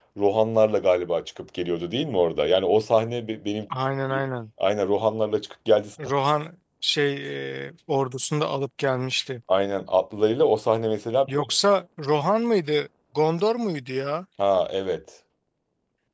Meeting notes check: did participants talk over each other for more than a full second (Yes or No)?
No